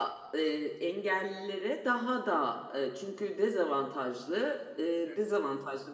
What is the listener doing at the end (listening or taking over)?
listening